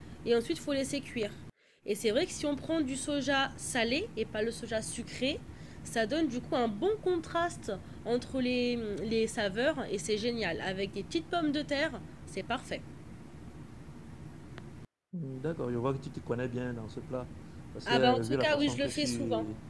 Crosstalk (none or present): present